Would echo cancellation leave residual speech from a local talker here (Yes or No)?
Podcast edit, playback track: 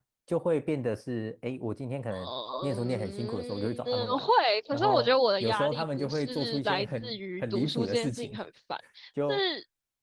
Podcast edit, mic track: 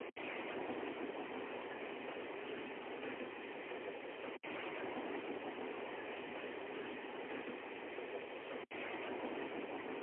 No